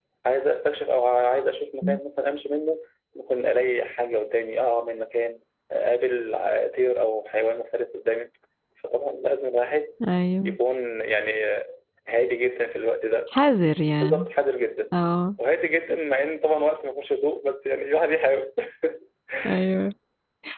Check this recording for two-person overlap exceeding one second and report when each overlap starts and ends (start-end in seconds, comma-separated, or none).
none